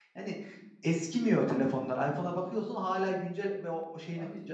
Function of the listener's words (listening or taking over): listening